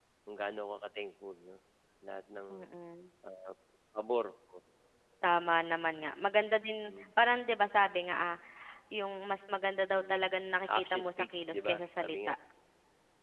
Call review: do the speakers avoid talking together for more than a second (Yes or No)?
No